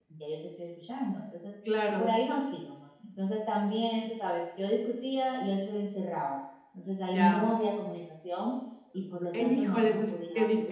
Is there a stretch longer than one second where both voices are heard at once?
Yes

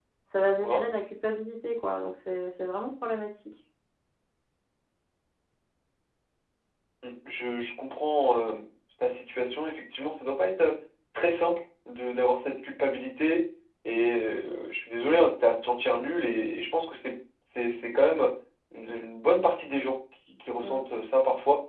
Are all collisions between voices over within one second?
Yes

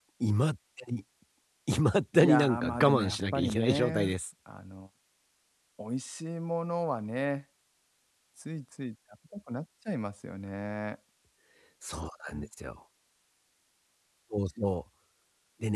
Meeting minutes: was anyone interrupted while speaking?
Yes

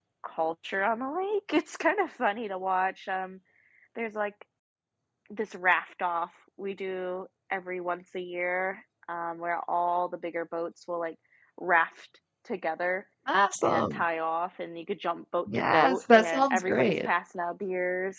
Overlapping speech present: Yes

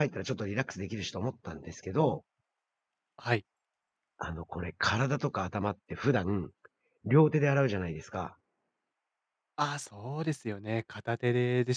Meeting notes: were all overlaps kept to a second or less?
Yes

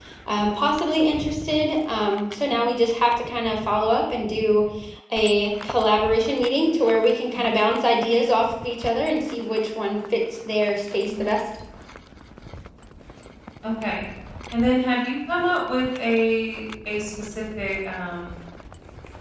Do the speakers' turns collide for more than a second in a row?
No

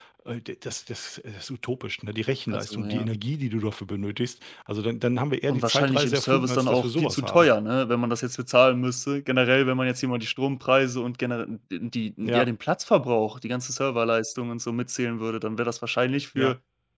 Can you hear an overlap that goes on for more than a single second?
Yes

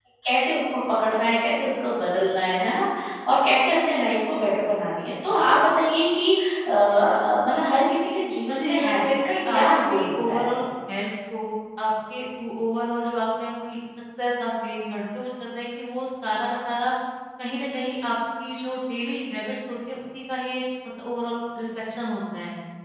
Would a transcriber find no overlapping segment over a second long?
No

